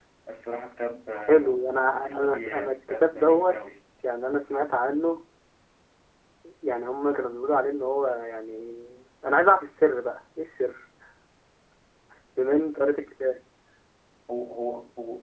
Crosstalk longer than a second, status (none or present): present